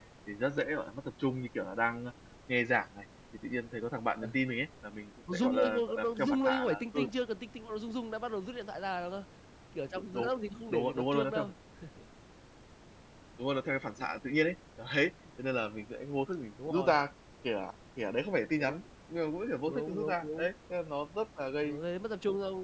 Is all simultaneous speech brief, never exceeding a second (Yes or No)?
No